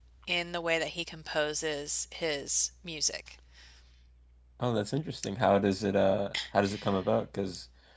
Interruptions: none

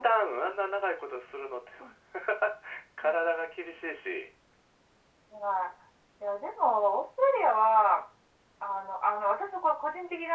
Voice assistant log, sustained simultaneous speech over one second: none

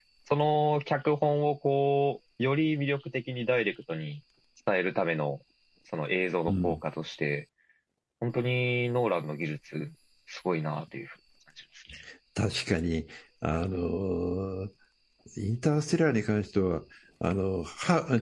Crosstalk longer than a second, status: none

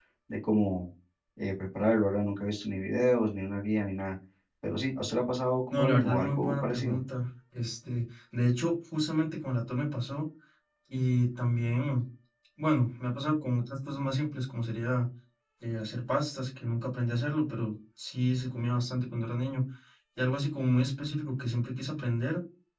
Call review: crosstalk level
present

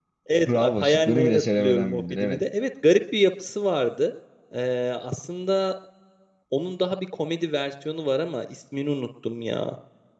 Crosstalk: present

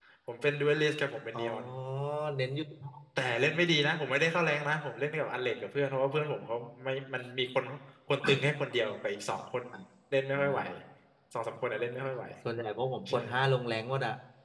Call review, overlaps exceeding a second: none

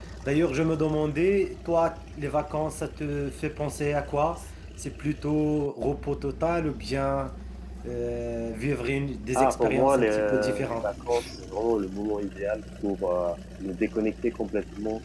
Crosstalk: present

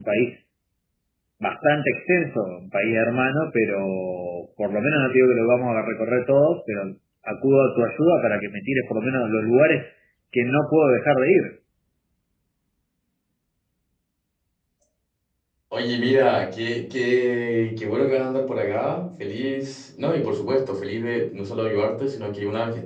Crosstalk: none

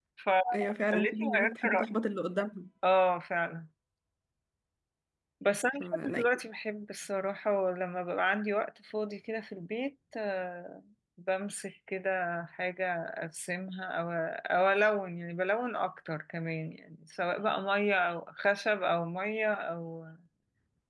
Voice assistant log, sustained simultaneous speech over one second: present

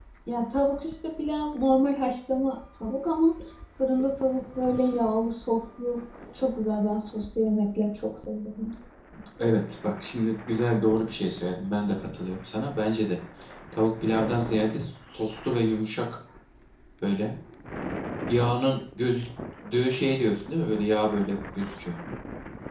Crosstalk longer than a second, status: none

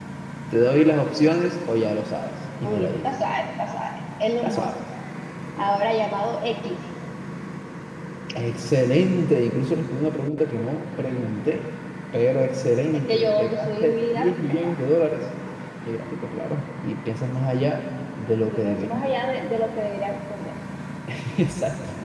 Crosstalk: present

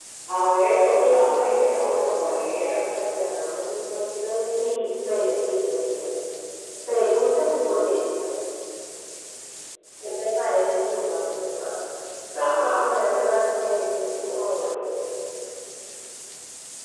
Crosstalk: present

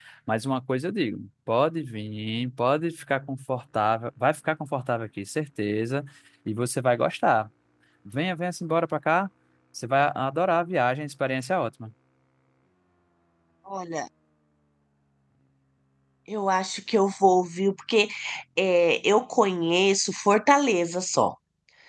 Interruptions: none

